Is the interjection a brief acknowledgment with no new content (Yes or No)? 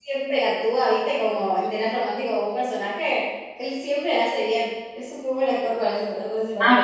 No